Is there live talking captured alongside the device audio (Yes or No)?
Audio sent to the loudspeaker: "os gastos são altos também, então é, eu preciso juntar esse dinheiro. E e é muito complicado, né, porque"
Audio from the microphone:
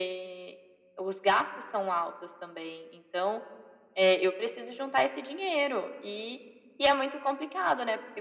No